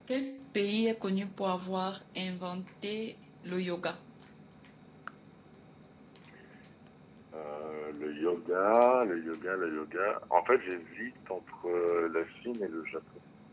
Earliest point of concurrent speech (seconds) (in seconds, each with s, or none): none